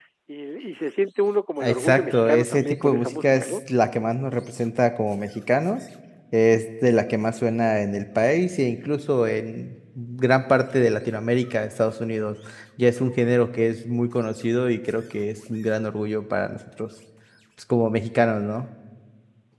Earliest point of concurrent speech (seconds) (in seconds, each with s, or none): 1.6 s